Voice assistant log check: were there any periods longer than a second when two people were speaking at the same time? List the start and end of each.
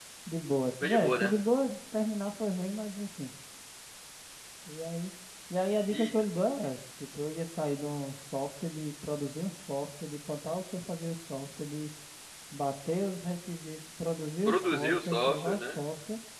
14.4-15.8

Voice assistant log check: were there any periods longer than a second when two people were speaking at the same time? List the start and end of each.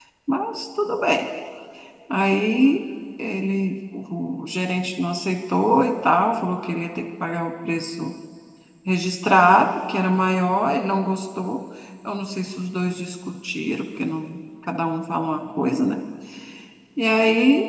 none

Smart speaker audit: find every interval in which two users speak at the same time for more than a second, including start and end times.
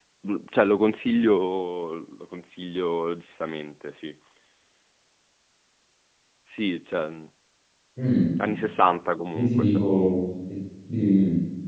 none

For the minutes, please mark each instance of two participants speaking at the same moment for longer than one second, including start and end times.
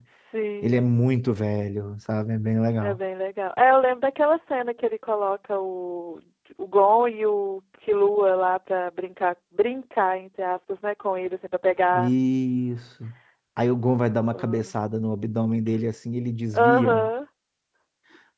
none

